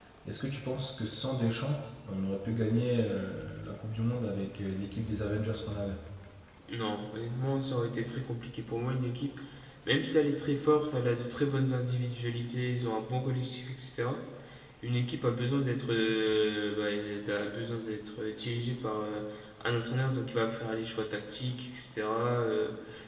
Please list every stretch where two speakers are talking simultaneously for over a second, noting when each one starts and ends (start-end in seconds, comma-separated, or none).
none